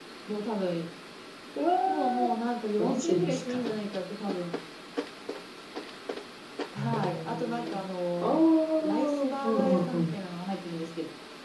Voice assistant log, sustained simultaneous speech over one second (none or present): present